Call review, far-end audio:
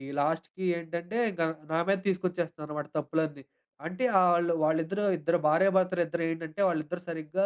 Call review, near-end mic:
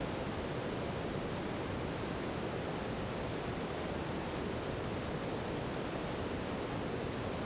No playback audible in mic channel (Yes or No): Yes